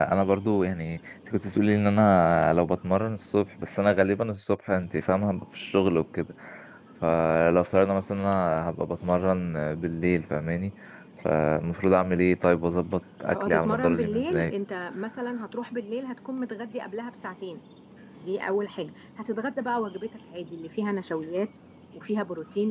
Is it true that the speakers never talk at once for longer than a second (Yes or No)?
No